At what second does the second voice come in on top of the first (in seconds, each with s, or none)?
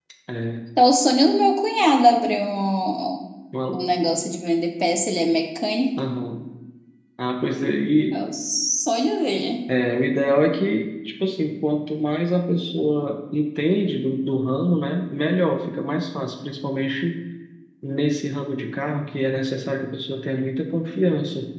none